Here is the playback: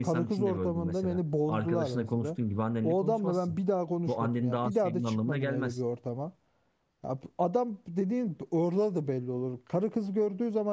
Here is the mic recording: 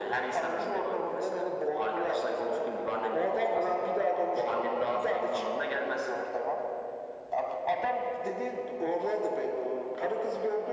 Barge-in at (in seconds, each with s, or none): none